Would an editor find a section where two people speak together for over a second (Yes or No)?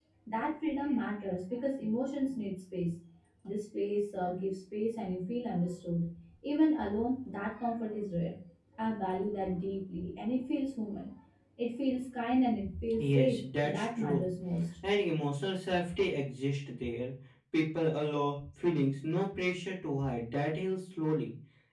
Yes